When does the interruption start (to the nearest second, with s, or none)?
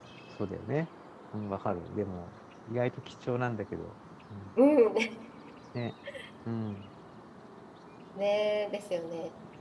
none